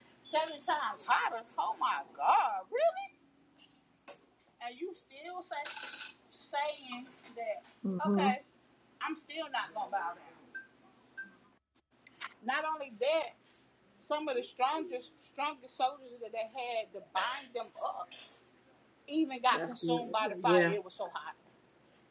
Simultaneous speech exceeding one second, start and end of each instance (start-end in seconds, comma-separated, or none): 19.5-20.8